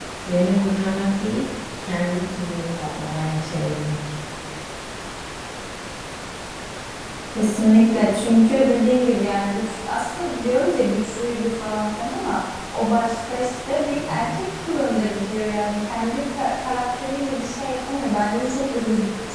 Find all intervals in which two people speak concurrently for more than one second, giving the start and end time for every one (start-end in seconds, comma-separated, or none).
none